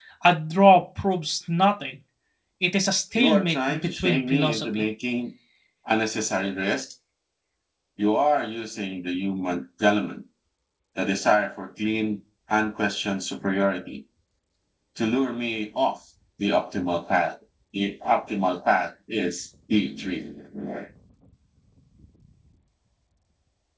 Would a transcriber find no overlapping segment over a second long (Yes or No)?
No